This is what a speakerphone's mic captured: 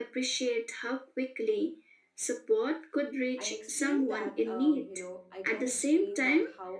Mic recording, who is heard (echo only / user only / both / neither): both